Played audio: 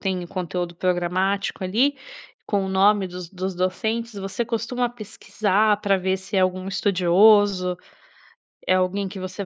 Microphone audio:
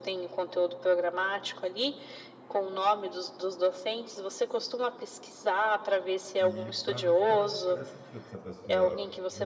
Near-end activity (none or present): present